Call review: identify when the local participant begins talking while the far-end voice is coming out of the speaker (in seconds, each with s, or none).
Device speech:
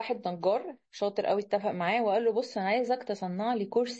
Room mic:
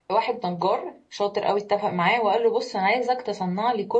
none